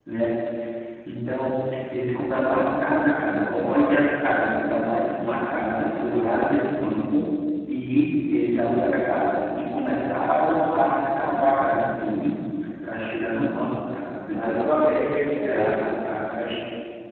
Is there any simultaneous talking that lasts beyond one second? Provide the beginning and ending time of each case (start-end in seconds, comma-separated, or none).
none